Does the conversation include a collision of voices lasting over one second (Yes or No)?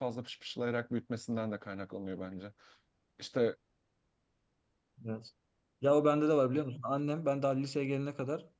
No